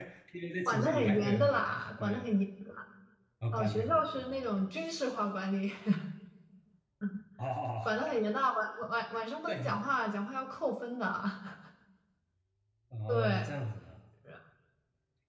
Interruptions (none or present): present